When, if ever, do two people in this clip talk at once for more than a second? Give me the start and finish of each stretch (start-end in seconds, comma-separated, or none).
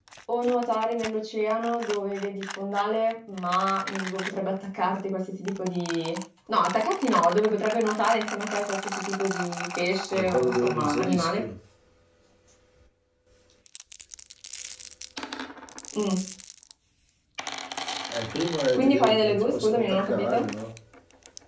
10.1-11.4, 18.8-20.5